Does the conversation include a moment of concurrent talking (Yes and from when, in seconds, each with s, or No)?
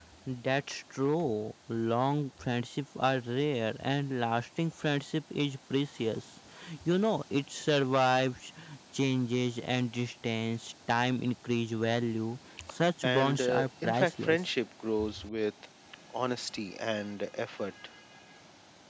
Yes, from 13.0 s